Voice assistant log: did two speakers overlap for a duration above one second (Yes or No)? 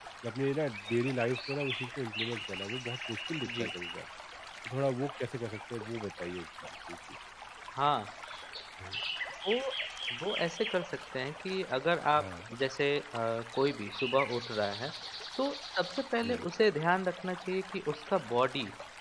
No